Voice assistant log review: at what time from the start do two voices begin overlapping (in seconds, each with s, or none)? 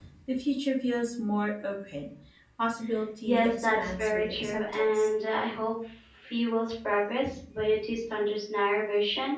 3.2 s